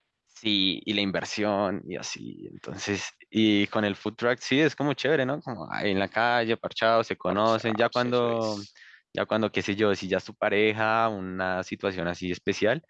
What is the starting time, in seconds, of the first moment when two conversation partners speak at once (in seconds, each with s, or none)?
7.3 s